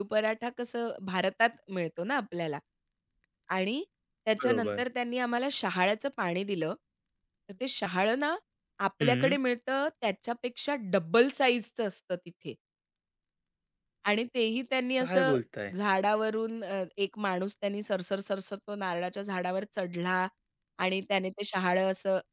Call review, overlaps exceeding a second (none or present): none